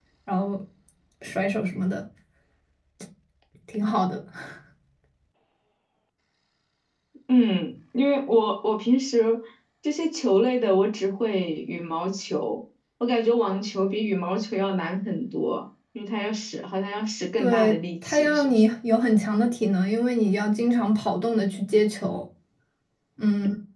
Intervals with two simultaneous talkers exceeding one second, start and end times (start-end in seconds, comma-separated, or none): 17.4-18.6